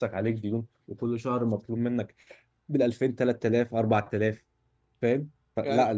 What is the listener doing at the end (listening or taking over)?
listening